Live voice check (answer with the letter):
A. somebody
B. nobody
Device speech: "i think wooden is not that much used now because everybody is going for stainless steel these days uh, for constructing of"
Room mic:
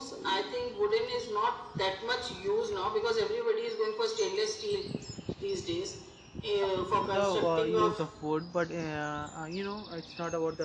A